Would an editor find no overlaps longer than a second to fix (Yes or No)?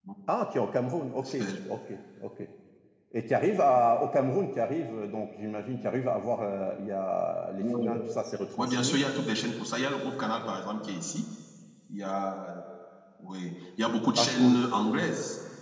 Yes